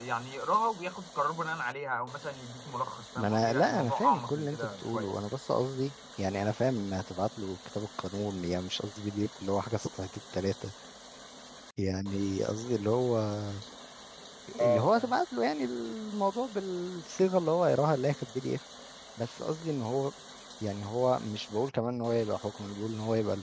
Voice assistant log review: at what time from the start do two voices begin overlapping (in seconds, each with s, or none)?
3.2 s